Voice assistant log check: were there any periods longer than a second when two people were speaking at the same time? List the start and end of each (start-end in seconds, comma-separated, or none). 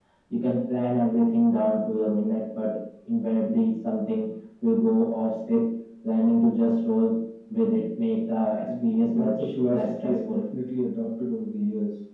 8.7-10.4